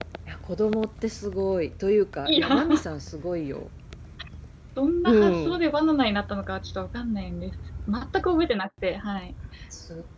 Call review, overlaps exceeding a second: none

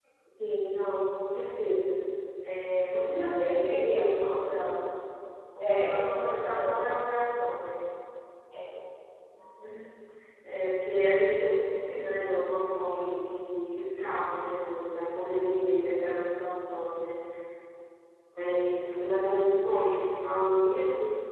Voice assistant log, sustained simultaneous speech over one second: present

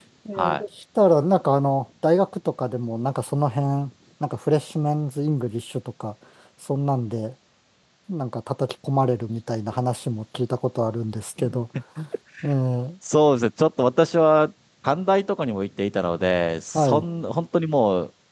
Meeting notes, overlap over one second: none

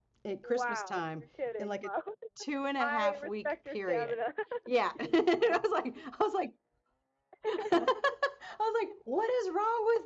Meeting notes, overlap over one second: present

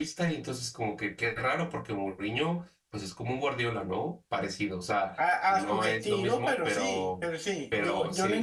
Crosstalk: present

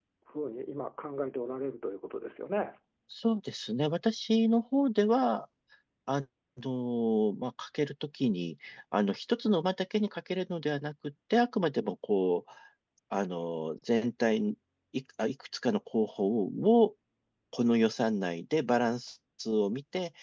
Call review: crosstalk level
none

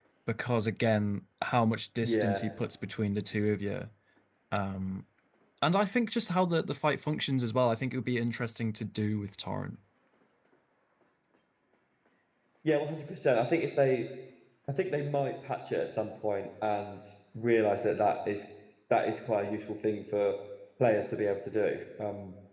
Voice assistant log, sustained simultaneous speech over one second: none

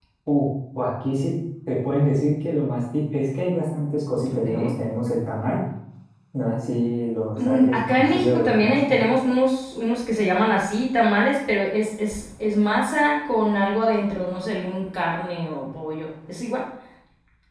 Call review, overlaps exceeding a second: present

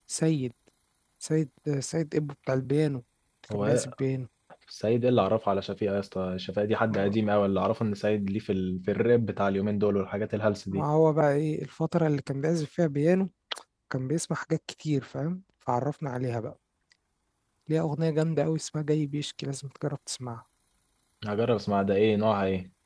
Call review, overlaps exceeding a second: none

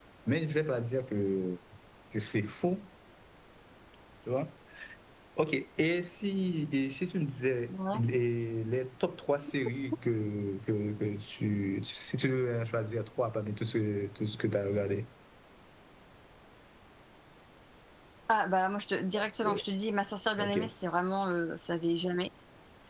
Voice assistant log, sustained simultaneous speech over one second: none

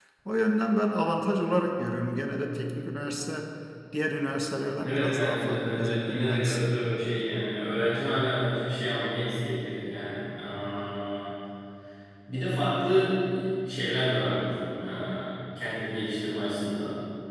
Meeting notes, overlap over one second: present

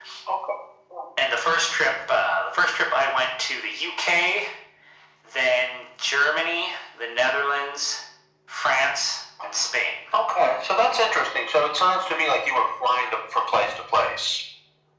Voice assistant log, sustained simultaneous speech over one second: none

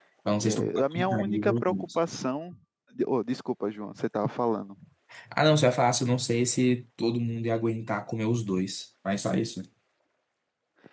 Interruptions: present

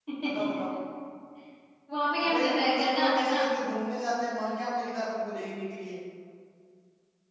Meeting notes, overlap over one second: present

